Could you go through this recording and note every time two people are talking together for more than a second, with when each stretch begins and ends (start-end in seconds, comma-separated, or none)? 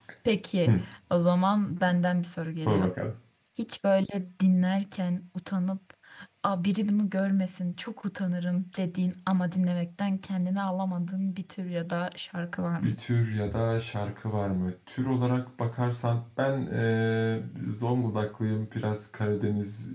none